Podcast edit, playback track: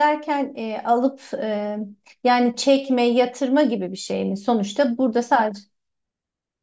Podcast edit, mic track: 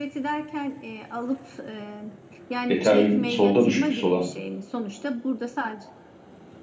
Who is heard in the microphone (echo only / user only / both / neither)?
both